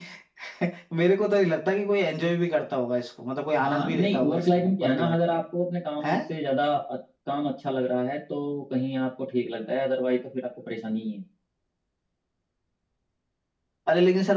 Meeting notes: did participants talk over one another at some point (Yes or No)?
Yes